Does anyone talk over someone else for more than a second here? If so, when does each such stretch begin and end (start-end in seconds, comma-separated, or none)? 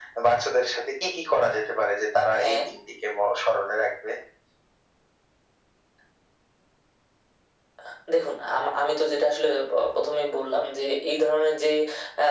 none